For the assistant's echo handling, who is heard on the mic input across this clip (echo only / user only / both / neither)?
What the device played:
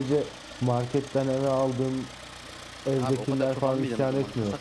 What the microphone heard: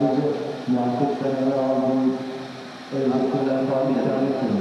echo only